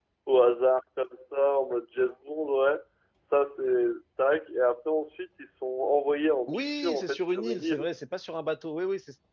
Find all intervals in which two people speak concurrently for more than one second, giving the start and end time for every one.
6.5-7.8

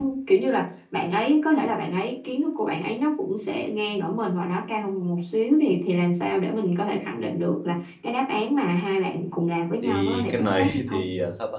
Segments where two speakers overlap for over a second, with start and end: 9.8-11.0

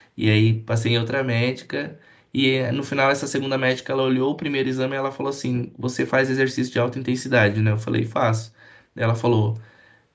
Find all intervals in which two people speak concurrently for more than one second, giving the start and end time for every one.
none

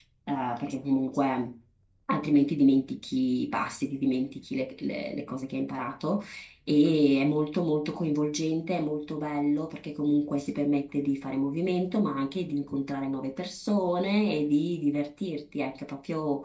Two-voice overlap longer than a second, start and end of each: none

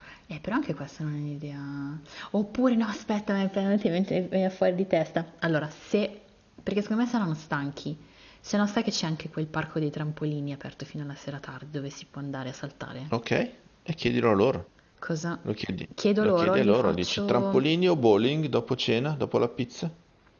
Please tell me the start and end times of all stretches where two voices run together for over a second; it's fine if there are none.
16.2-17.6

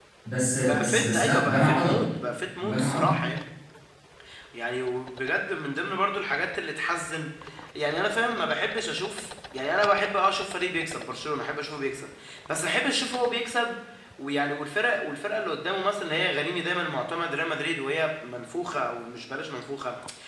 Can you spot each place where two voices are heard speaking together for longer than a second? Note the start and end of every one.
0.6-2.0

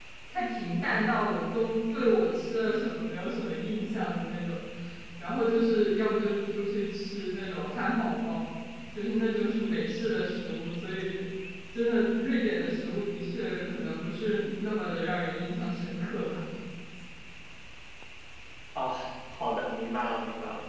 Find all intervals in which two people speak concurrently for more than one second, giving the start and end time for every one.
none

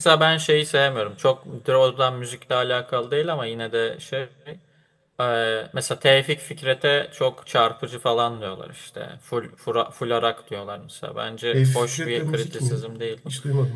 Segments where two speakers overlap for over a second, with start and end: 11.5-12.8

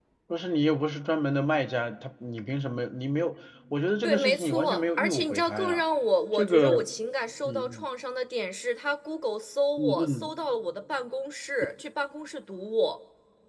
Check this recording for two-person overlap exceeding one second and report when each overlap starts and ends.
4.0-5.8

